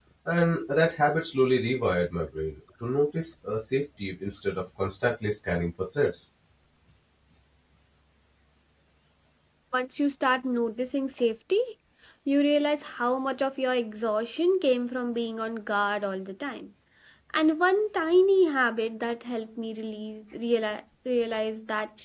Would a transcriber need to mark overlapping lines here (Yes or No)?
No